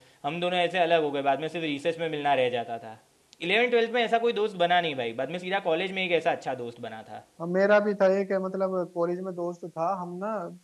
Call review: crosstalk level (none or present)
none